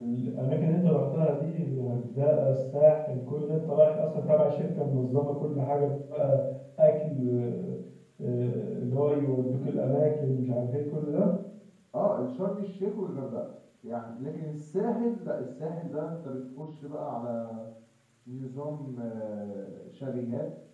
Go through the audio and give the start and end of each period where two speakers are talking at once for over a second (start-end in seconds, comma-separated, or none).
none